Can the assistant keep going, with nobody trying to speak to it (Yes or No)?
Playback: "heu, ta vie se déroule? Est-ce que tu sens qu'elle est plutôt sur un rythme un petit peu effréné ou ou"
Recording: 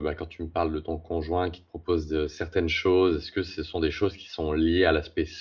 No